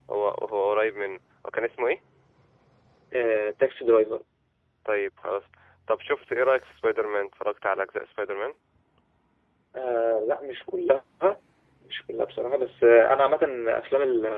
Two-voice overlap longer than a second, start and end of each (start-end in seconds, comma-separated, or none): none